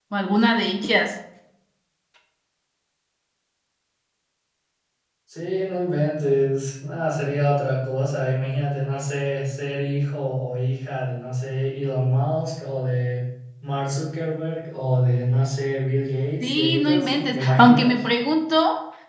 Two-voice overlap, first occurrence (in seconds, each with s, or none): 16.4 s